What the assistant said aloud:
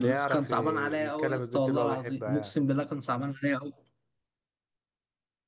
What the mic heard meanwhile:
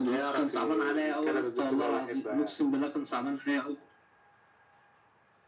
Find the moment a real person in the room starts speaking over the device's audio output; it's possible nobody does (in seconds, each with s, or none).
none